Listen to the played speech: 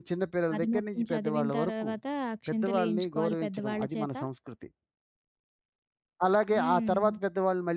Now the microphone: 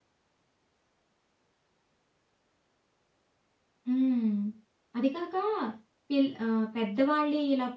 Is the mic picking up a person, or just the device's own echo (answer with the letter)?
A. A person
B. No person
A